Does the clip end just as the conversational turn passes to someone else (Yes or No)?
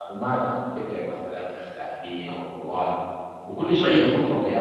No